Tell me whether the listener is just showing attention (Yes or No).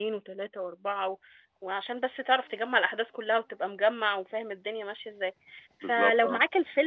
Yes